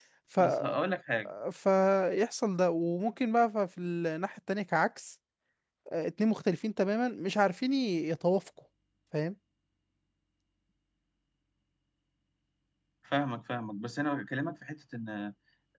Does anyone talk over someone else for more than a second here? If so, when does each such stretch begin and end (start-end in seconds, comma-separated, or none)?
none